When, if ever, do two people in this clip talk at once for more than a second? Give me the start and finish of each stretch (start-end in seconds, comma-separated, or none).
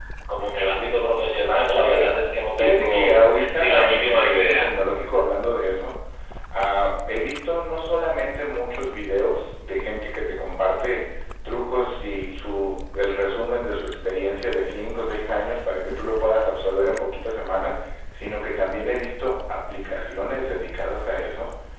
2.6-4.7